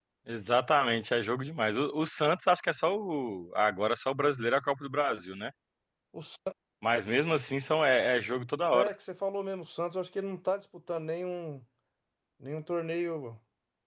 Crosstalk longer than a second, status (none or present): none